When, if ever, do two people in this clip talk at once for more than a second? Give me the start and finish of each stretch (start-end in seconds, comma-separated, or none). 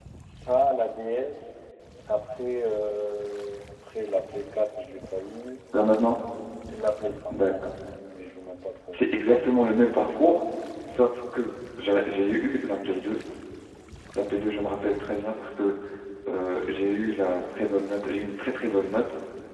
none